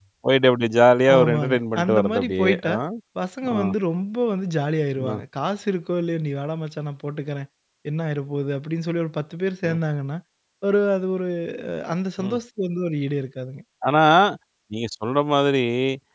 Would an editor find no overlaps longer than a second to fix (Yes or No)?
No